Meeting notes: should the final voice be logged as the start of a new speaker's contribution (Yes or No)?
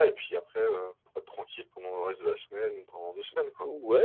Yes